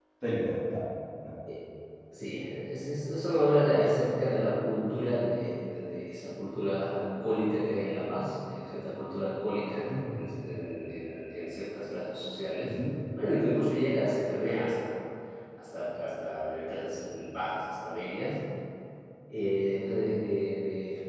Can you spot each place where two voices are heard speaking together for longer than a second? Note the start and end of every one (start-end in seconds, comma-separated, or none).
none